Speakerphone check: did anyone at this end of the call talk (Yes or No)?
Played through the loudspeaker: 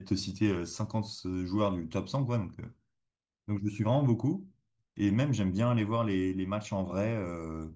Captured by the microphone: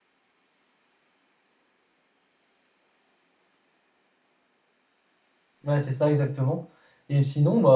Yes